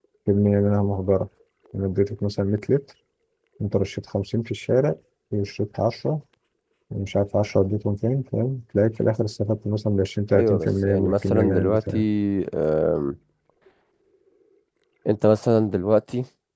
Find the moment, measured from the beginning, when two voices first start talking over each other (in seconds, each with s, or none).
10.3 s